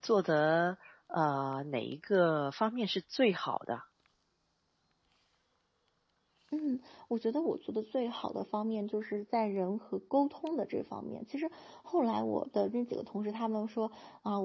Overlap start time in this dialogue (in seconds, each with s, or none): none